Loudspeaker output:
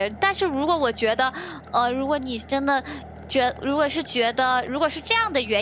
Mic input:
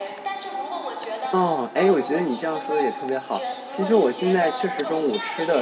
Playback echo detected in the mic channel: Yes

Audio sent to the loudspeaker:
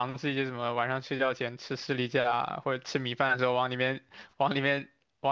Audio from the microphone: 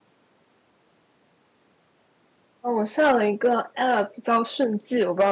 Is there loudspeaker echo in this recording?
No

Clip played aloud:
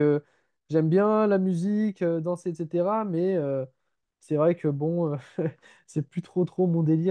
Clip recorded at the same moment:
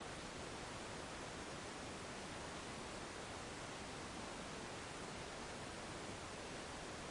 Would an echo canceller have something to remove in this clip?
No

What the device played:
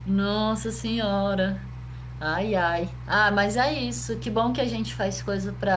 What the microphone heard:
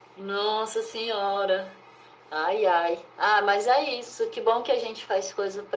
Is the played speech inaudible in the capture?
No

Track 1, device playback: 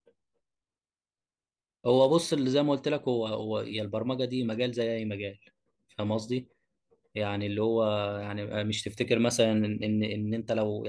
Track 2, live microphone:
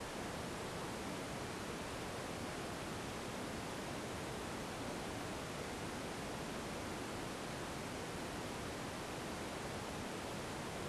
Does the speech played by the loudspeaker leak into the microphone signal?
No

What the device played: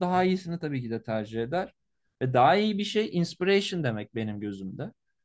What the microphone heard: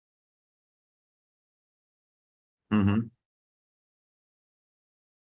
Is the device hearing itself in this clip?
No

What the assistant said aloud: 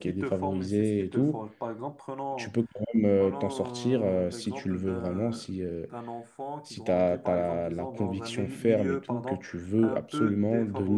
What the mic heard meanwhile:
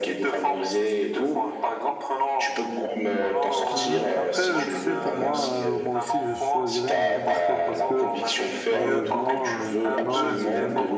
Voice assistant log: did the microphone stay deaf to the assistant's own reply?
No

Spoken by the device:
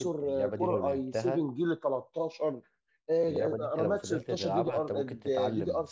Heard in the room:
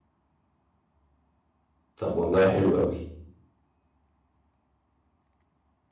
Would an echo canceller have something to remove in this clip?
No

